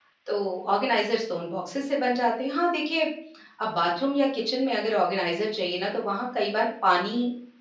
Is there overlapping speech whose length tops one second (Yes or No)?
No